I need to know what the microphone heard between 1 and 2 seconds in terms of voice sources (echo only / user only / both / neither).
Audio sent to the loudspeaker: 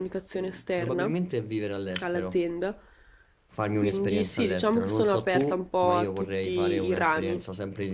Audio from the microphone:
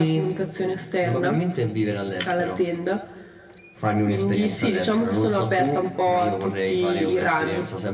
echo only